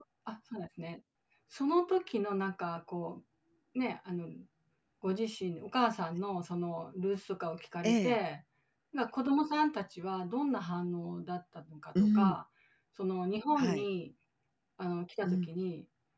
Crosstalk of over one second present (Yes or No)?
No